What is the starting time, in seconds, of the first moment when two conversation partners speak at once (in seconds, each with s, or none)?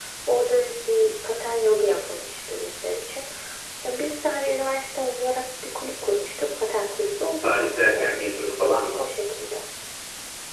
7.2 s